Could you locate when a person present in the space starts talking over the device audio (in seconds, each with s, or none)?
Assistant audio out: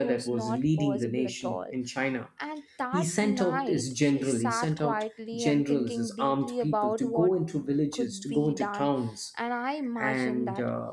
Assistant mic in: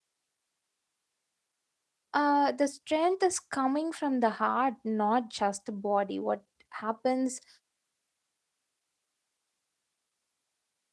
2.1 s